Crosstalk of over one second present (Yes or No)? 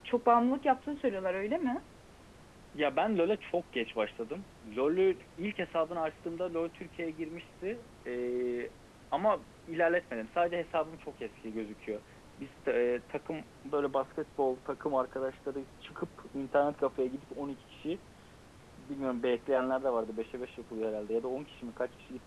No